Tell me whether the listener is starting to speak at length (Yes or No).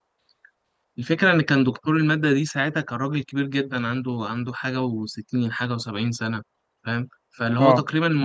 No